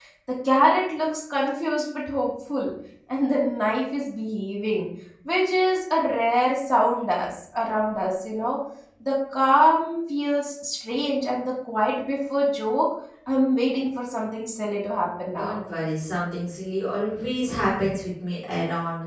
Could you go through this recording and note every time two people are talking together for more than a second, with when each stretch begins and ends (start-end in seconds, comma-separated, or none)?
none